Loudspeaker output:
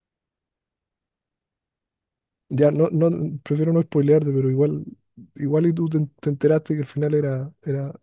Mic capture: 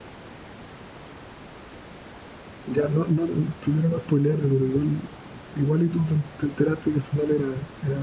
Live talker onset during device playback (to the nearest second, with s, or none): none